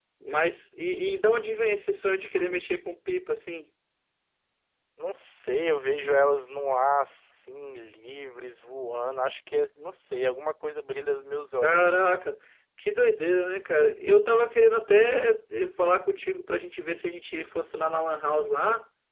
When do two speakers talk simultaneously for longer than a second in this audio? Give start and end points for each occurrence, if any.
none

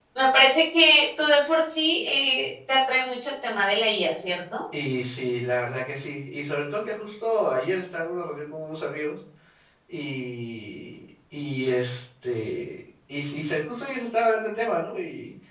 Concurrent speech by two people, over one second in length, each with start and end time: none

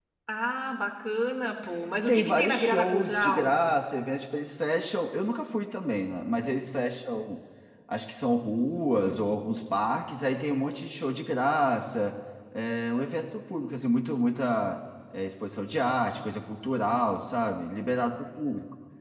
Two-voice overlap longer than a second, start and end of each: 2.1-3.5

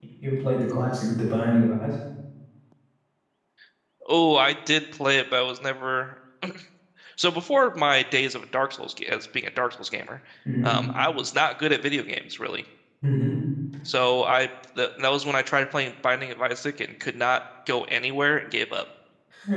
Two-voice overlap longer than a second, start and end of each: none

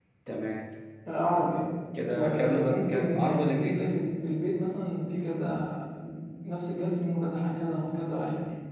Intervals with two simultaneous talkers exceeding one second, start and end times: 2.1-4.0

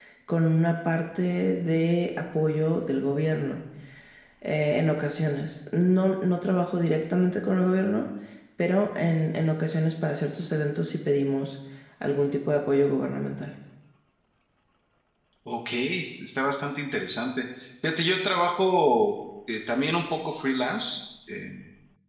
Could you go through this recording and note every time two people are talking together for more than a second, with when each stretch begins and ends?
none

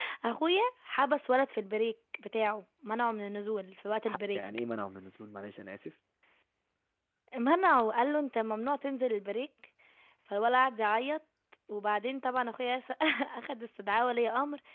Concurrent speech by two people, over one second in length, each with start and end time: none

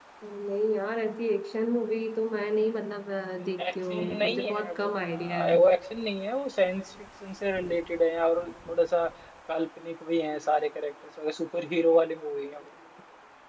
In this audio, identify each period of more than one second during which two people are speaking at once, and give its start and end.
3.6-5.5

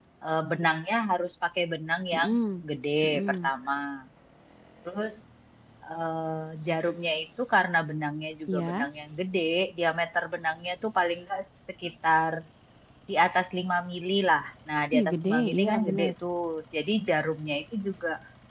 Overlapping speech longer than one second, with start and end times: 14.9-16.1

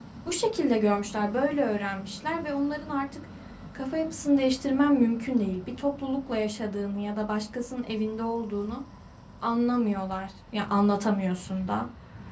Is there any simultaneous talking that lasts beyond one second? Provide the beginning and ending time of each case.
none

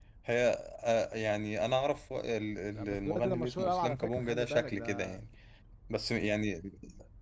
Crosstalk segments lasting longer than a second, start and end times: 2.8-5.2

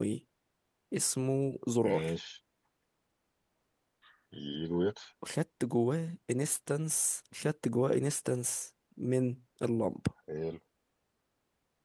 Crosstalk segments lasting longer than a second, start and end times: none

